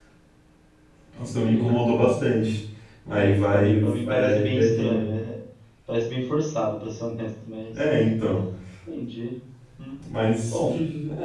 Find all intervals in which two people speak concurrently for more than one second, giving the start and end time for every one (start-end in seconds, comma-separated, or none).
3.1-5.0